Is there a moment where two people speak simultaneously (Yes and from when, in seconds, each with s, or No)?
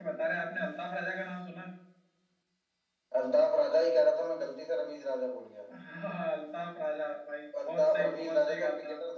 Yes, from 7.5 s